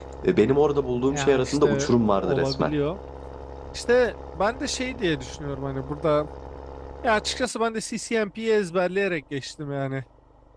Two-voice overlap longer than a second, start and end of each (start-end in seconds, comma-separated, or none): 1.1-2.7